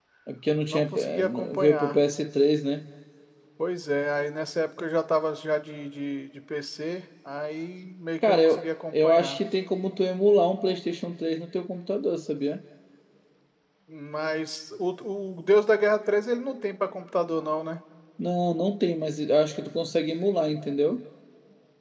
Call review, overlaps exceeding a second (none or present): present